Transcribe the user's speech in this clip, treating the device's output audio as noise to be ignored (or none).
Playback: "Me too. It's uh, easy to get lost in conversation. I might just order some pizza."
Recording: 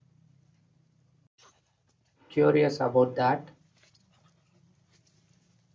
curious about that.